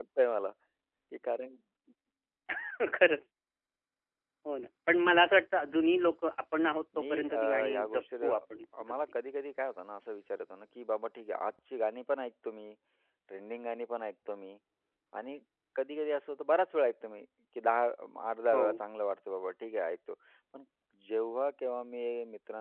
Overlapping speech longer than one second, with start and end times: 7.0-8.2

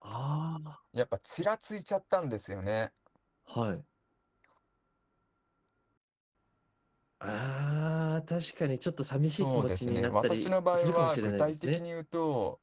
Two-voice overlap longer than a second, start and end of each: 9.3-11.8

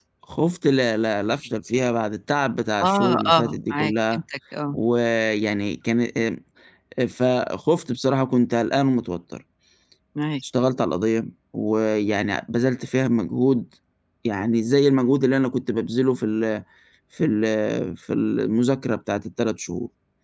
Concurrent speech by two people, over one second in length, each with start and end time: 2.8-4.2

